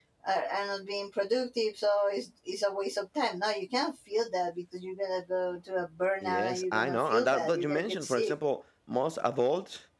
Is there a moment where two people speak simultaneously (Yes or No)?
Yes